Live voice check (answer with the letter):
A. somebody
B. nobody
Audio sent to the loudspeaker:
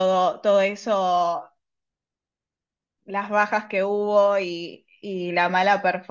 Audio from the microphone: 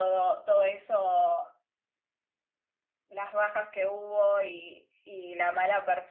B